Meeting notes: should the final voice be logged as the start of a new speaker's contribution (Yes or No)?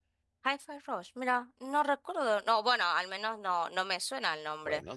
Yes